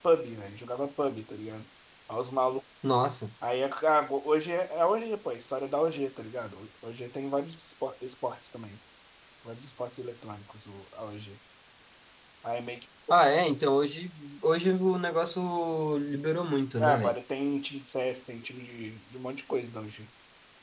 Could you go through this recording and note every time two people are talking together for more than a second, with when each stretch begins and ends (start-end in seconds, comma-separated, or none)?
none